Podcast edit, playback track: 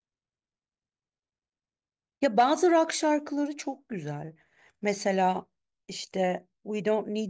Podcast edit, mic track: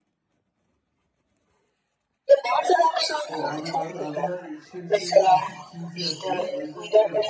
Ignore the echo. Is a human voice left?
Yes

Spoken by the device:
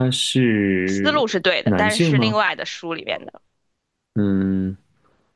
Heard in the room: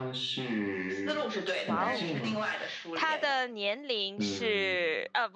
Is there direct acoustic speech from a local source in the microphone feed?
Yes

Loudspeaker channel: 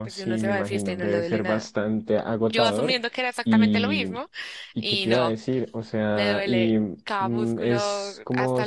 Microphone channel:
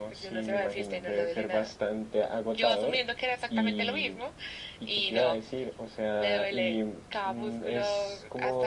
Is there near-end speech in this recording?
No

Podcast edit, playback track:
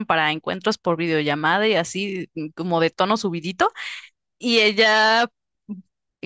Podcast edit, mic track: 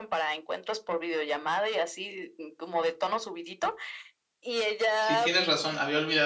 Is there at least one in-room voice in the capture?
Yes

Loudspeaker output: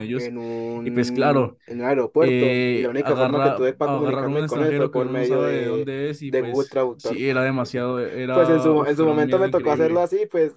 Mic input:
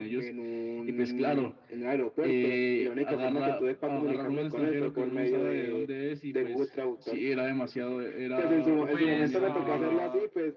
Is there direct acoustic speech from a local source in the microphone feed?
Yes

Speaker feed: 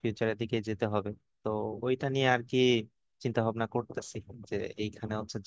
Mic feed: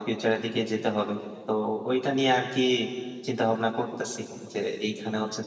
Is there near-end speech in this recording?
No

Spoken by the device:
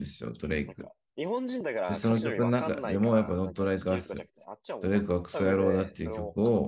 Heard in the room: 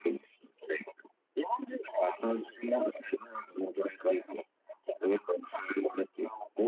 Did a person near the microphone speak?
No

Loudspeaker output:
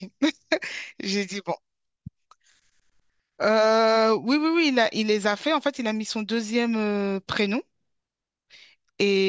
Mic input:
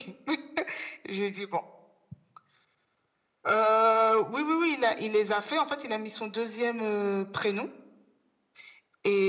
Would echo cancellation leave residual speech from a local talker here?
No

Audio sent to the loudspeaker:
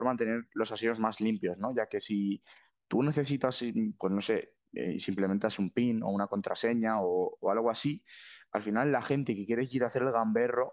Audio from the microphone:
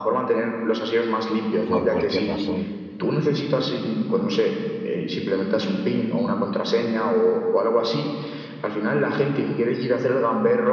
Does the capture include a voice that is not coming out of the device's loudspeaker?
Yes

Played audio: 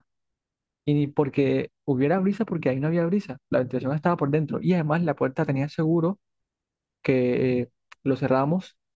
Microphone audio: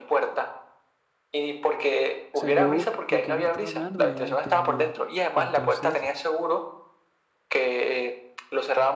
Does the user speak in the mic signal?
Yes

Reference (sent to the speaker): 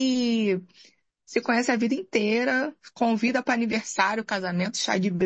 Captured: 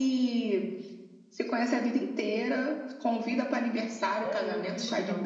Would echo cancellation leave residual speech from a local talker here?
Yes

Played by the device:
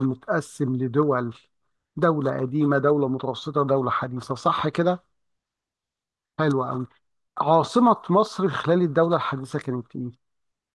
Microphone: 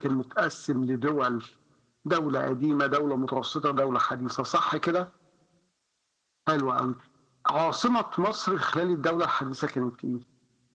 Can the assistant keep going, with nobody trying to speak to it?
Yes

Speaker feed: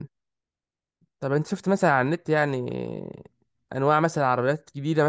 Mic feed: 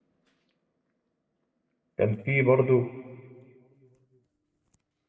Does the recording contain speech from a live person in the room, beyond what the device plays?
Yes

